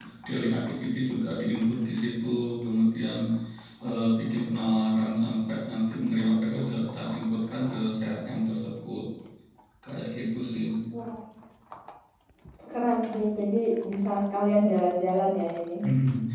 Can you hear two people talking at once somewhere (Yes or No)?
No